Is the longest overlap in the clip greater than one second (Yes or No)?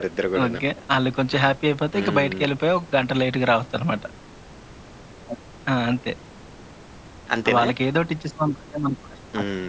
No